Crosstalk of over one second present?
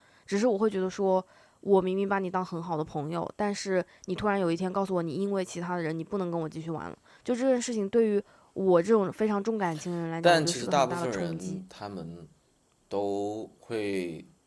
Yes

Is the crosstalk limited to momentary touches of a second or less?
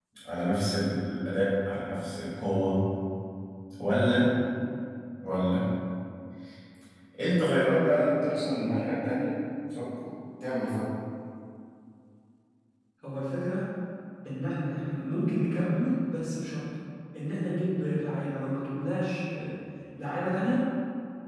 Yes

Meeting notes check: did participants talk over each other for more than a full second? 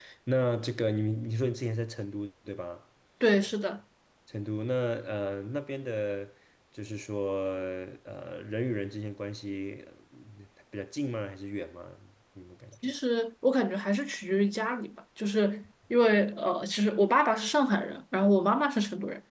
No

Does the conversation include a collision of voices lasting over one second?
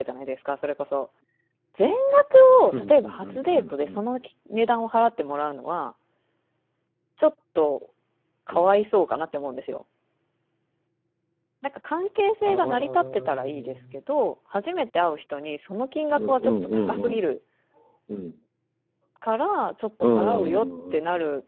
Yes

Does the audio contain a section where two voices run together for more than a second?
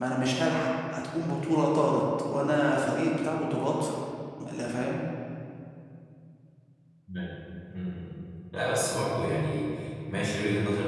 No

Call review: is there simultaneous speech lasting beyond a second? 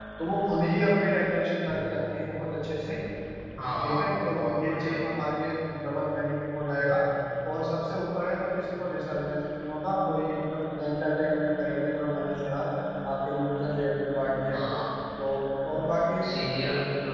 Yes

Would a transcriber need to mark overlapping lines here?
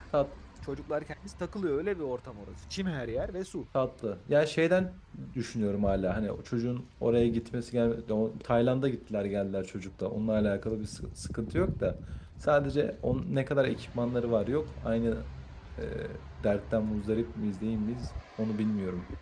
No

